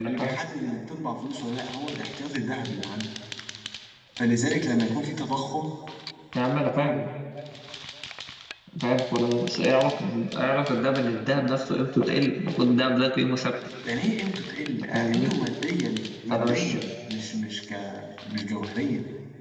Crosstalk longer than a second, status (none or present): none